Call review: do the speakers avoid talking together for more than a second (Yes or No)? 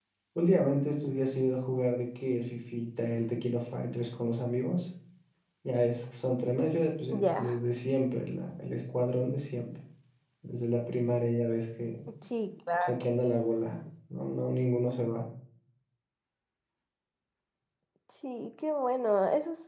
Yes